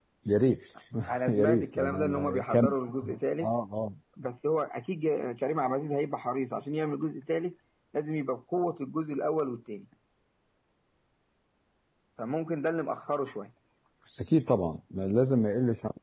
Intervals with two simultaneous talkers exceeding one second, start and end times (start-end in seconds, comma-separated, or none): 1.4-2.8